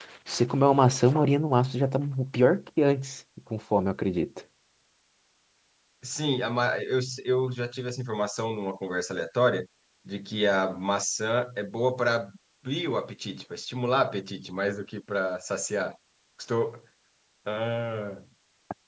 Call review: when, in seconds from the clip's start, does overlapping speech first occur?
none

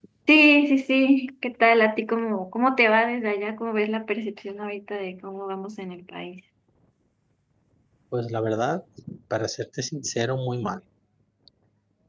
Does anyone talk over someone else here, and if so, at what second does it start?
none

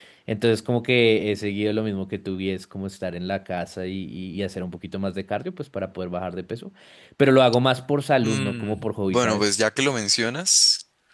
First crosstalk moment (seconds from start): 8 s

